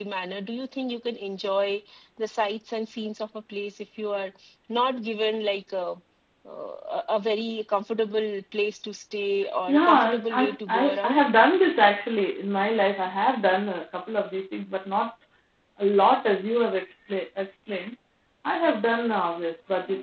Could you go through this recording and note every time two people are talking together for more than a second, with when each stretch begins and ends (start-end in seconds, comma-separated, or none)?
9.7-11.2